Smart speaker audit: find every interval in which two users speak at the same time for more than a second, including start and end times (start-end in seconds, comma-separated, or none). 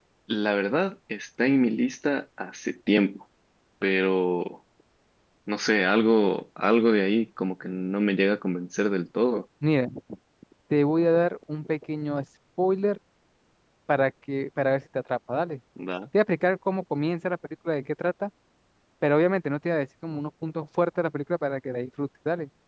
none